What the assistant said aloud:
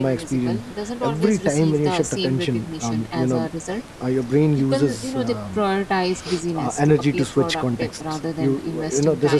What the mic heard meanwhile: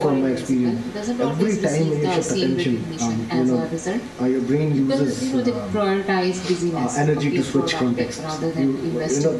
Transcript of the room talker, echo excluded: none

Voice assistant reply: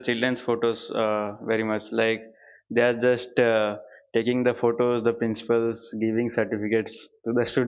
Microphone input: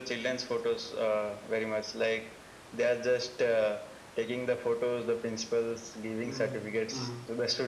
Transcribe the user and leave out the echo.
Mm, mm,

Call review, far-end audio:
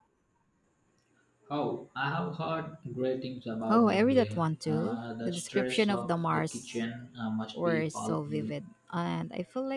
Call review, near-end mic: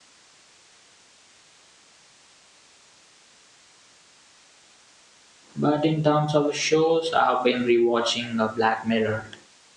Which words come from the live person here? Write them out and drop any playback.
But in terms of shows, I've been rewatching uh, Black Mirror.

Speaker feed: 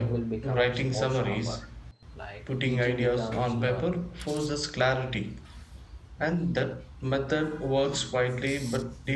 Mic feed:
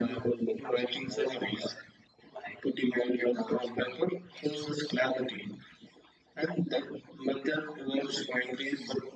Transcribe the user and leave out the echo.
none

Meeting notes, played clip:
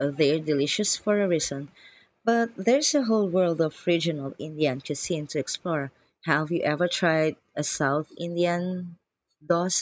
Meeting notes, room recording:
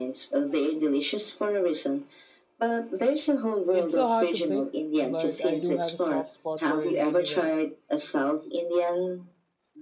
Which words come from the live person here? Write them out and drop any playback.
It's so hard to pick, but I do have a soft spot for a really well

